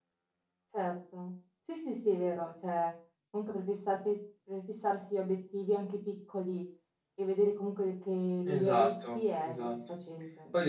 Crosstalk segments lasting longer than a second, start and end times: 8.4-9.8

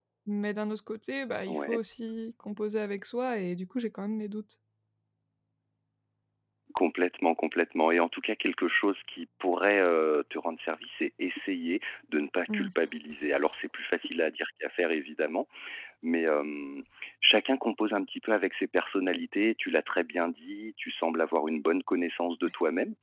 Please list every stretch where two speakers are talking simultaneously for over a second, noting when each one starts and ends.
none

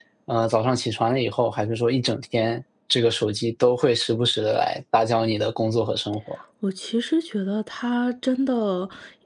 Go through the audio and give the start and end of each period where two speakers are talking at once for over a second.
none

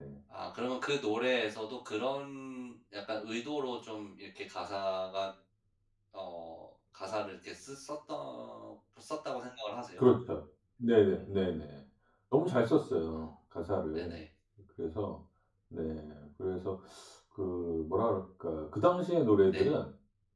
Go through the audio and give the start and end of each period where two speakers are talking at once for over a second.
none

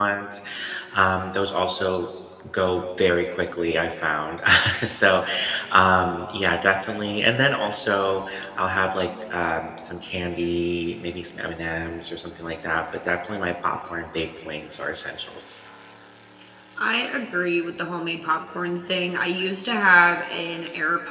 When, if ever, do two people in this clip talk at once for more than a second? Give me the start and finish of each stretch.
none

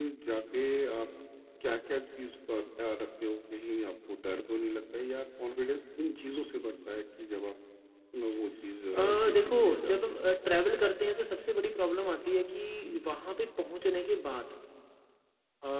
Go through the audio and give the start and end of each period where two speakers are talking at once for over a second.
8.9-10.2

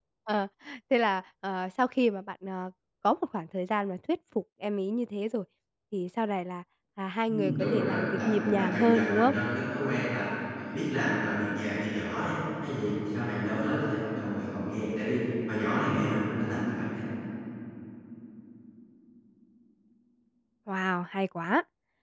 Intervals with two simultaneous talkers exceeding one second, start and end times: 7.3-9.3

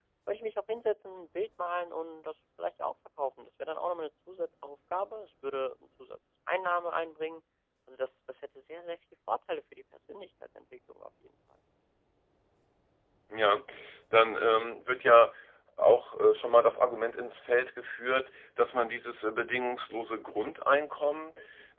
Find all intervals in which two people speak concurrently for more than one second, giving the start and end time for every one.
none

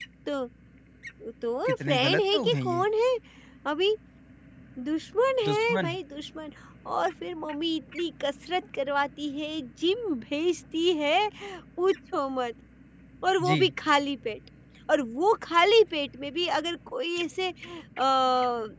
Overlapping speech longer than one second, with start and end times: 1.6-2.9

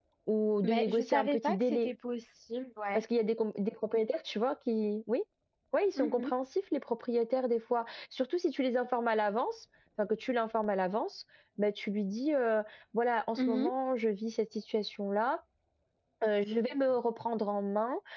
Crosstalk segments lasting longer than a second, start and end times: 0.6-1.9

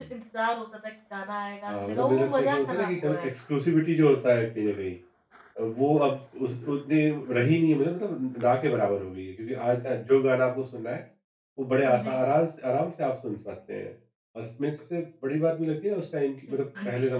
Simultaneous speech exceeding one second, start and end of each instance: 1.7-3.3

